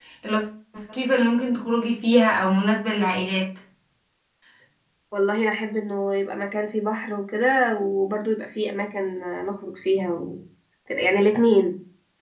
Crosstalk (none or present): none